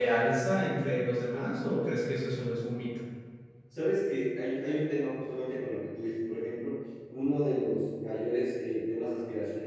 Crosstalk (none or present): none